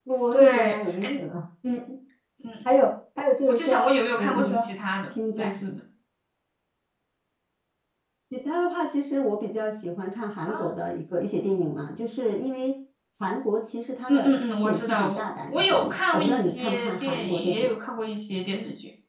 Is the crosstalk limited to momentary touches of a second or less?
No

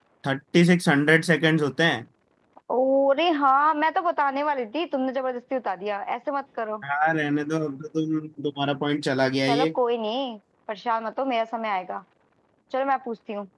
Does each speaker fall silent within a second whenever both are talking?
Yes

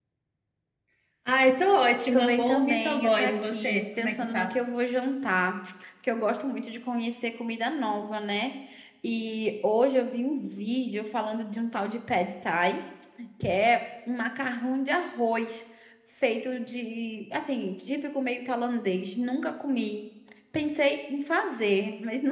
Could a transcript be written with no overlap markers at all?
No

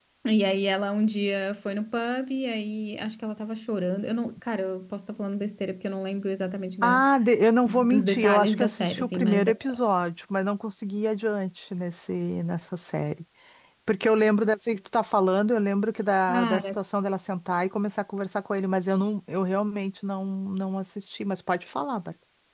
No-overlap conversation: No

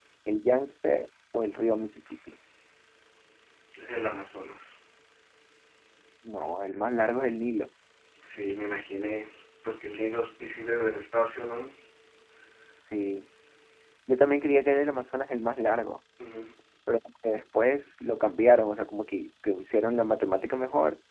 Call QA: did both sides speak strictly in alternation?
Yes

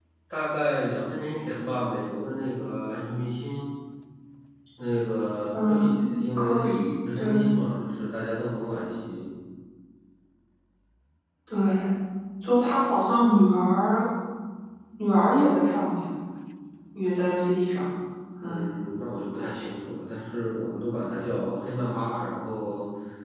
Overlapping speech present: Yes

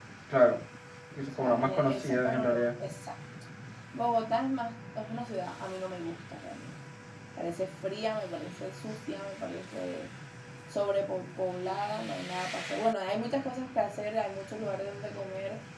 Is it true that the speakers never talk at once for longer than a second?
No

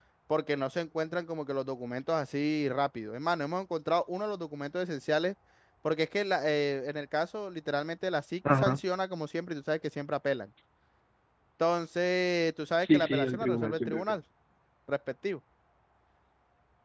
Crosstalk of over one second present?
Yes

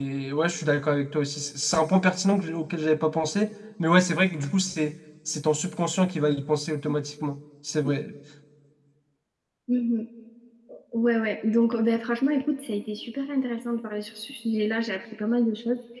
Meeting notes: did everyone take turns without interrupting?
Yes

